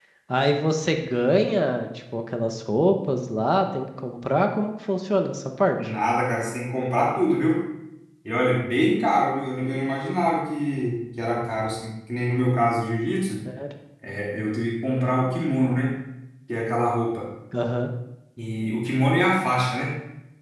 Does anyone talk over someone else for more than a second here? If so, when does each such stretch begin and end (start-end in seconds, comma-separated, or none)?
none